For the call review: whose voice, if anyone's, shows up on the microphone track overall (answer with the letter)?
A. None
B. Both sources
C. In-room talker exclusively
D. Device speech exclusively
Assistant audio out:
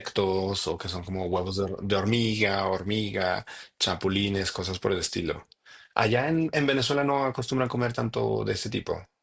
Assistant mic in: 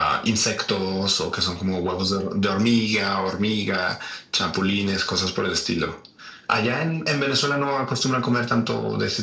D